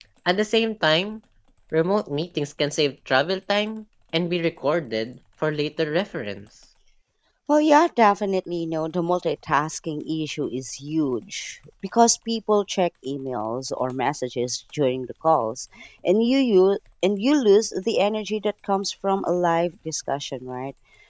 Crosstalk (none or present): none